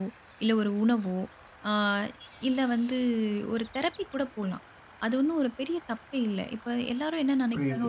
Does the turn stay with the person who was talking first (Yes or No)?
Yes